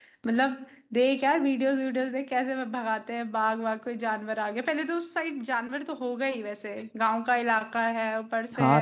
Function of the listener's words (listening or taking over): taking over